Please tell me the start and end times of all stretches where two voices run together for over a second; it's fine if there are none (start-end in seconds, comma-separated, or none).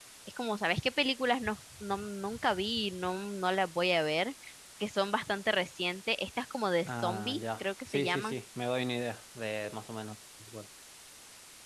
6.9-8.3